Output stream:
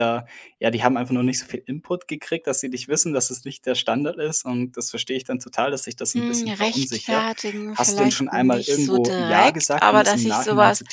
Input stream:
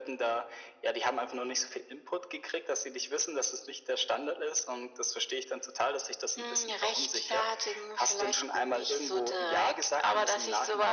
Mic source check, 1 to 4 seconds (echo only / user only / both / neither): echo only